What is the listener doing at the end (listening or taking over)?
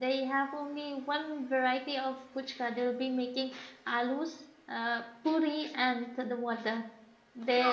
taking over